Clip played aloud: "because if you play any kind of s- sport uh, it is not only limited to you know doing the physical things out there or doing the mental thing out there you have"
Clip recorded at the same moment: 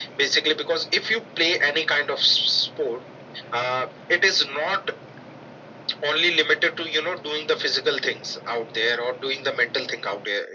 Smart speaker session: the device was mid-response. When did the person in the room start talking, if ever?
none

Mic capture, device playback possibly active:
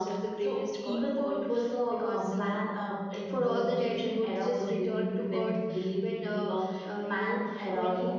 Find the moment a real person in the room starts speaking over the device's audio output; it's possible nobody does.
none

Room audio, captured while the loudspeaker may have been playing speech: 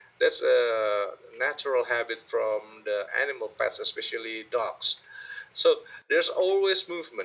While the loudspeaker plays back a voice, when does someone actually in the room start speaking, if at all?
none

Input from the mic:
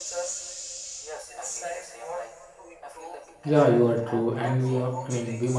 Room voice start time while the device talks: 3.4 s

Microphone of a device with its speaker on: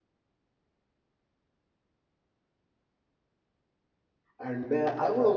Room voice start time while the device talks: 4.4 s

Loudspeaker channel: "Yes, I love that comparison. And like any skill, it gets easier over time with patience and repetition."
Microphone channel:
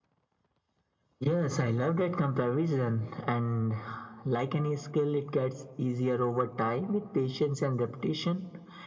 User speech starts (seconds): none

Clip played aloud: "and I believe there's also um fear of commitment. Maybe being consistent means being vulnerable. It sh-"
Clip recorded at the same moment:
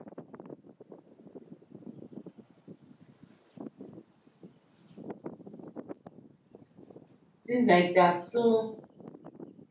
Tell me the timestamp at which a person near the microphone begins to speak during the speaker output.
7.4 s

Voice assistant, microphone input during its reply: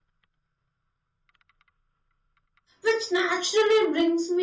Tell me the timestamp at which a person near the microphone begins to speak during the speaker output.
2.8 s

